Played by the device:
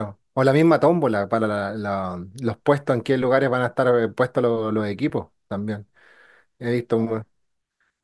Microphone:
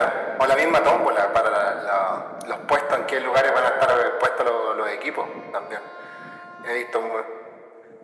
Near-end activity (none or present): none